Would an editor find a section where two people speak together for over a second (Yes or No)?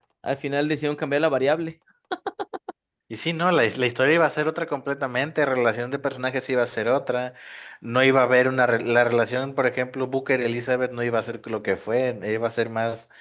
No